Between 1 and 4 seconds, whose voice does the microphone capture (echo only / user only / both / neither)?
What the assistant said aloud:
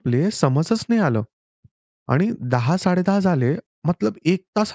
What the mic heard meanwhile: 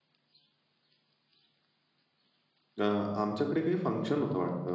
user only